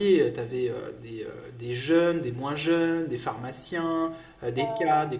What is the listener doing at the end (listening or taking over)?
listening